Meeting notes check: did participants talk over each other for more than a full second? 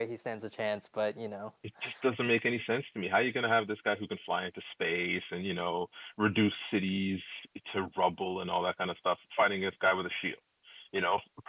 No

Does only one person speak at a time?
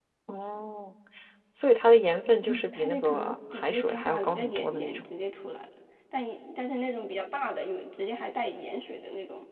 No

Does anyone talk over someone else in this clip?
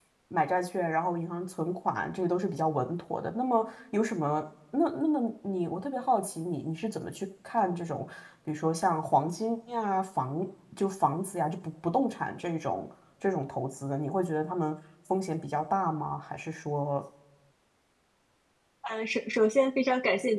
No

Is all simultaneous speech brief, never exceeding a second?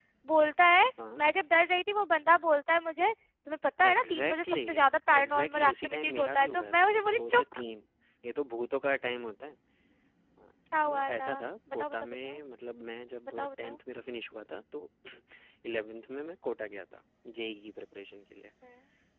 No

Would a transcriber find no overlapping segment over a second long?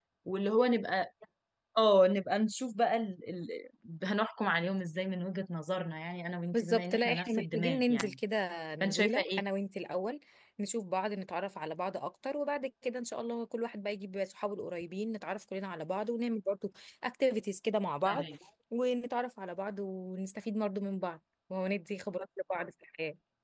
No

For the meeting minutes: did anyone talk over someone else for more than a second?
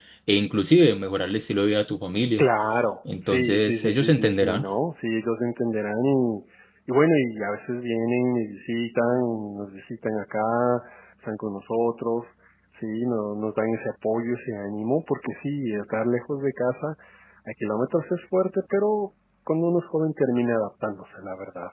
Yes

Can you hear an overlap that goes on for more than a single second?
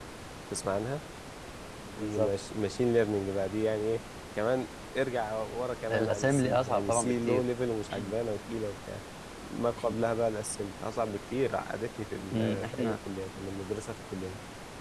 Yes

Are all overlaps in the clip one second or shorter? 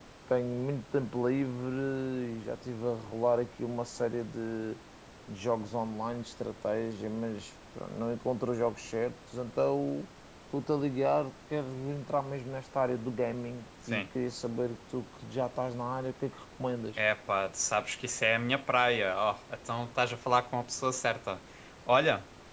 Yes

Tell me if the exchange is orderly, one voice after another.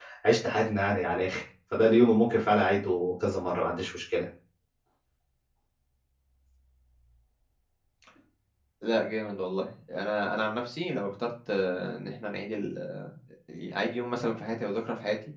Yes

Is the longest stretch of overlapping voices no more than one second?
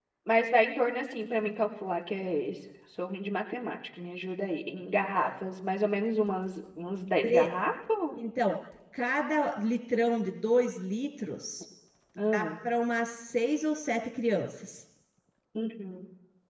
Yes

